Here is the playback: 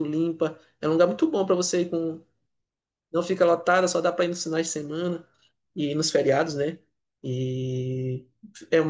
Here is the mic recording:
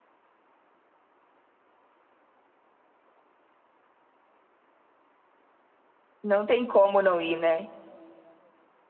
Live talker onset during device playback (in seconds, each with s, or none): 6.2 s